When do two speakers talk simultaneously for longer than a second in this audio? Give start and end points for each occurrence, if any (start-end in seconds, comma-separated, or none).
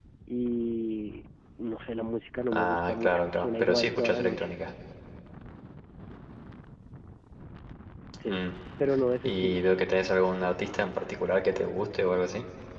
2.5-4.5